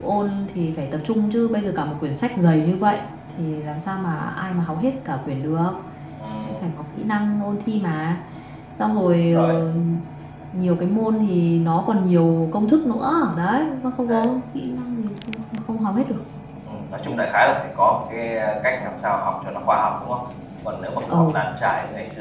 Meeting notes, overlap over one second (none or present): none